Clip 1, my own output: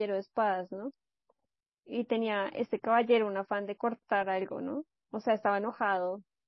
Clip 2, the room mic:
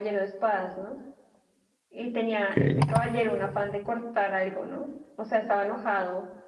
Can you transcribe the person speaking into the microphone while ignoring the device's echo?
Ok,

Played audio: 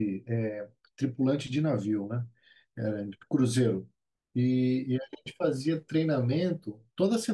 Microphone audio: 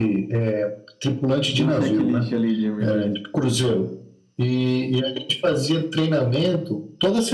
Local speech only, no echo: Tinha um checklist ali de emergência.

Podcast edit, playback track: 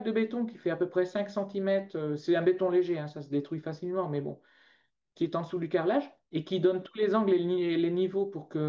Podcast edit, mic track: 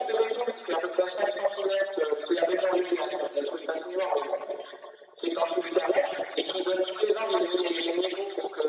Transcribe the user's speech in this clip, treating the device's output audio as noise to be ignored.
none

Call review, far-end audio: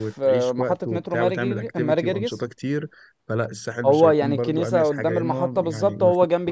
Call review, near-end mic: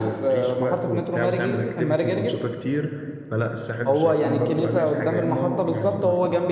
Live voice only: none

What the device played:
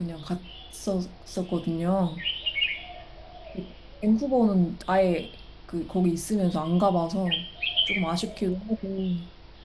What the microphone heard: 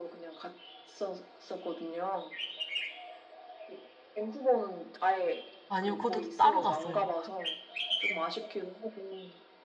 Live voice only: 아니요 그것도 따로 갔어요.

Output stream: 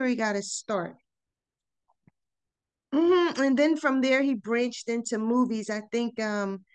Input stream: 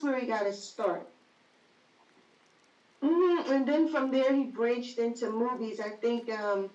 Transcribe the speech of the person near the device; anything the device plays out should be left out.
none

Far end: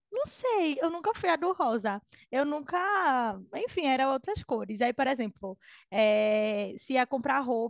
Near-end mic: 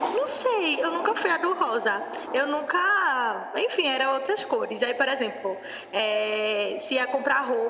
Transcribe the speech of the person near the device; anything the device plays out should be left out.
none

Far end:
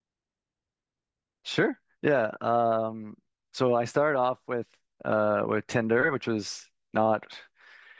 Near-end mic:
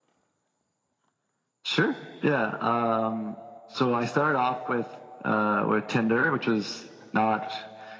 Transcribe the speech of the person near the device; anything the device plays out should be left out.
none

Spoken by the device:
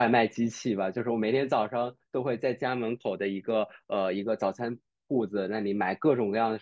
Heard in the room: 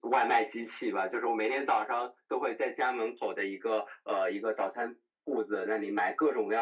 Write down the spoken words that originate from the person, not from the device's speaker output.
none

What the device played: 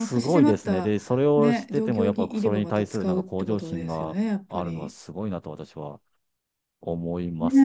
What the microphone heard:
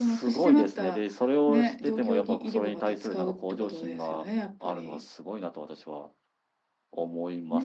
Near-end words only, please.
none

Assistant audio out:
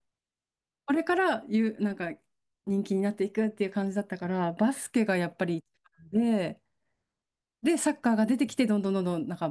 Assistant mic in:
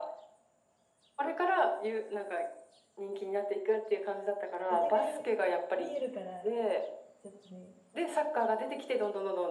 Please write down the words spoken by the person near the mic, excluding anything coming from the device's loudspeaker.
お互い見えるから、ちょっとね、

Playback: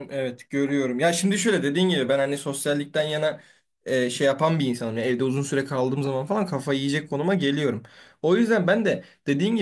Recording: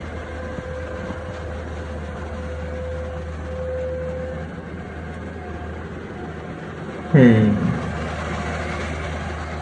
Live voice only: Hmm.

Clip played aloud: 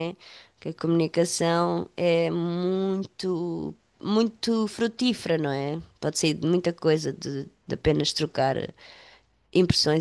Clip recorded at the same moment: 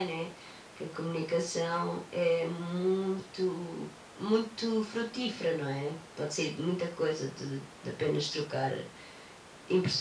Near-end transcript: none

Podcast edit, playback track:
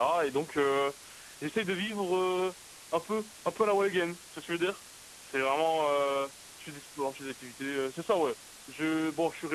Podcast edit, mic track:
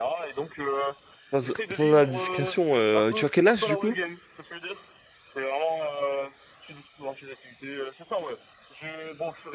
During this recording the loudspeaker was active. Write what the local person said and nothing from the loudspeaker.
Sans, sans indiscrétion, euh, tu as quel âge, du coup?

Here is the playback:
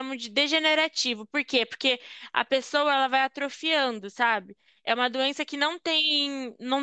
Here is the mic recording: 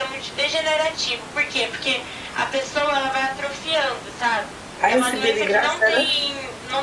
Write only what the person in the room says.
Aí recebia de graça, era?

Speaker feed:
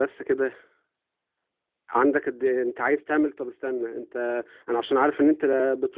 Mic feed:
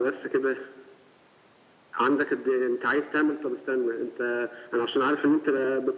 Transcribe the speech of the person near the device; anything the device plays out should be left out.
none

